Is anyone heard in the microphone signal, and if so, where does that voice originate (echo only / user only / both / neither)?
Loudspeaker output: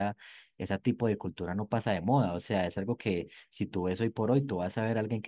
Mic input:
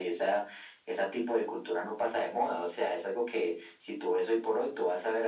echo only